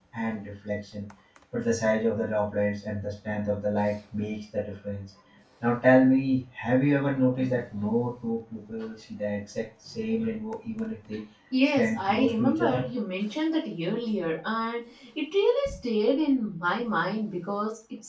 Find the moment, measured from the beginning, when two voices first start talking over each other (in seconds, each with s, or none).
11.5 s